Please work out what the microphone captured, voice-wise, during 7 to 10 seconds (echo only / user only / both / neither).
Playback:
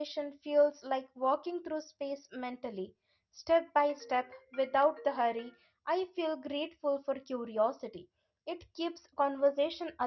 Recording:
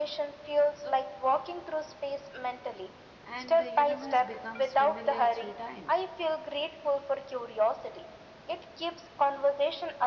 echo only